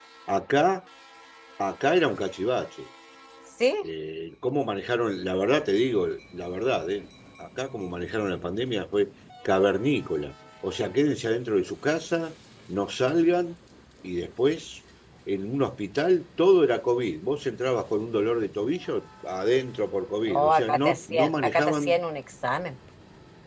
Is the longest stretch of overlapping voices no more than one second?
No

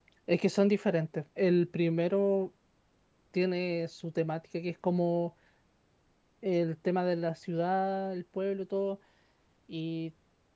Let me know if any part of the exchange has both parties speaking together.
No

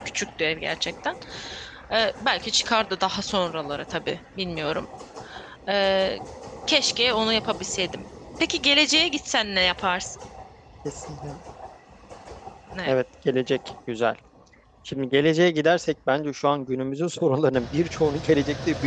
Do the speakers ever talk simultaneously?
No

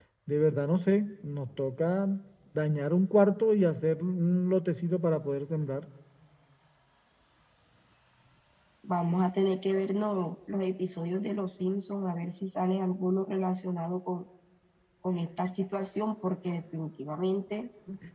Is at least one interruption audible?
No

